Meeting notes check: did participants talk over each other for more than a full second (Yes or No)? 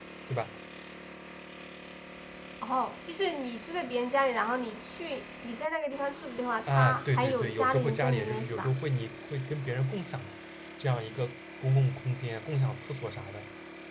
Yes